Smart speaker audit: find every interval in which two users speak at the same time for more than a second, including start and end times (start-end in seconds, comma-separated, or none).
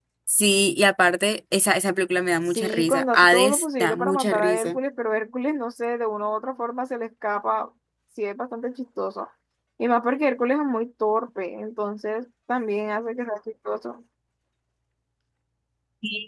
2.4-4.8